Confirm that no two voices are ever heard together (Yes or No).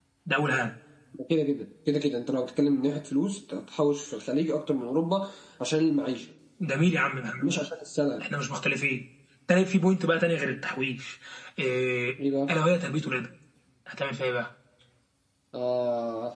Yes